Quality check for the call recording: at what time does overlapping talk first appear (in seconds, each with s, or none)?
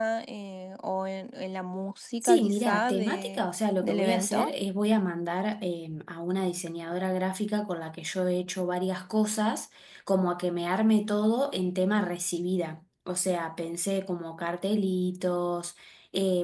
2.2 s